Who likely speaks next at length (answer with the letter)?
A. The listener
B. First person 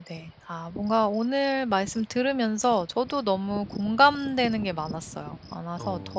B